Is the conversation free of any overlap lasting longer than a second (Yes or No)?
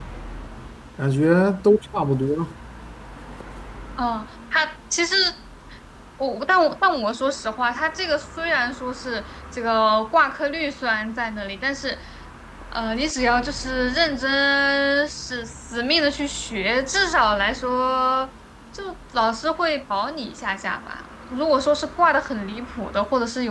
Yes